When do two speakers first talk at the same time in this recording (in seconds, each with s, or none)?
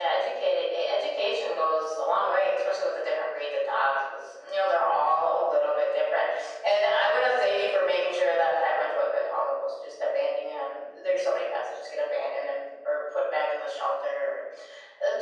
none